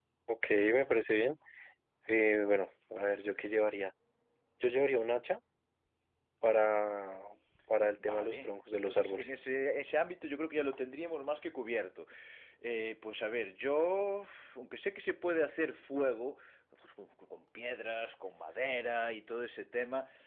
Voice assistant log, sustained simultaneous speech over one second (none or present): present